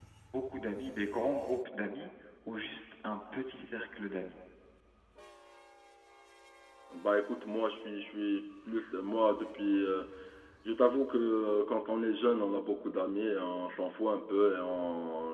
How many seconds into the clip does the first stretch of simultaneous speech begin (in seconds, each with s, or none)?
none